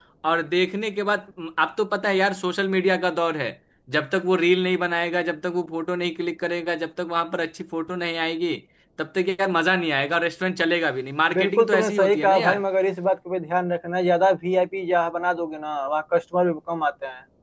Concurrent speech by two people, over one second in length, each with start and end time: 11.3-12.6

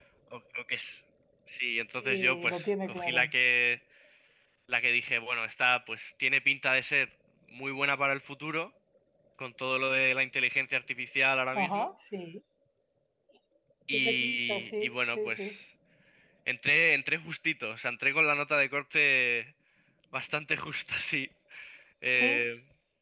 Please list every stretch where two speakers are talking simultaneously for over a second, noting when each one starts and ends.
2.0-3.3, 13.9-15.4

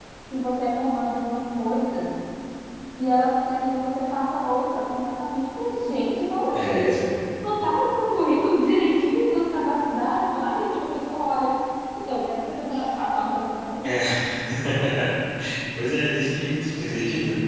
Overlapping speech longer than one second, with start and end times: none

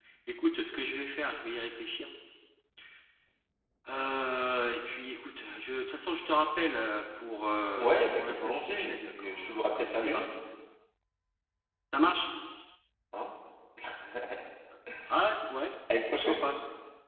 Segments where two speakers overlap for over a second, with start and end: 7.8-10.2

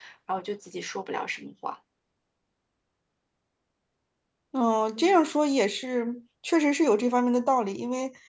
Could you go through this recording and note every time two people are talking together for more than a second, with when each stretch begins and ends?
none

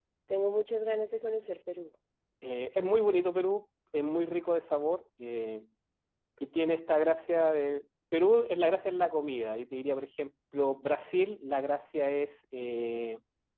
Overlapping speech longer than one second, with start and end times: none

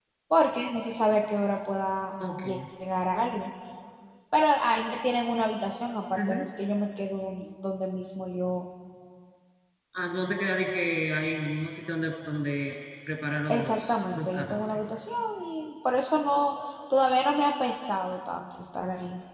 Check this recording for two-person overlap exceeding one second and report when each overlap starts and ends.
13.5-14.8

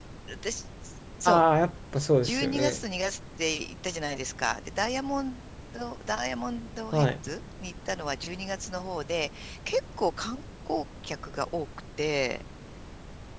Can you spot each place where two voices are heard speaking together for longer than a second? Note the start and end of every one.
none

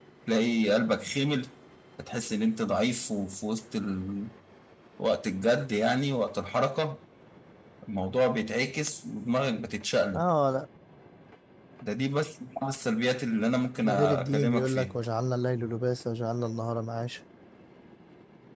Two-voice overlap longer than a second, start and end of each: 13.8-15.0

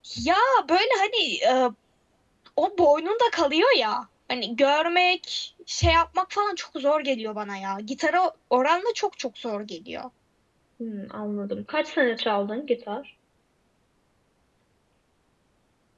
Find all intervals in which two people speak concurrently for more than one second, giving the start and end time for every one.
none

